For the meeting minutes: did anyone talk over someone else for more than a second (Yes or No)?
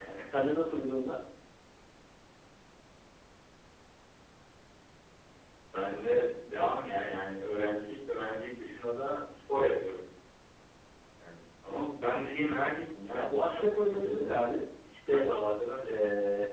Yes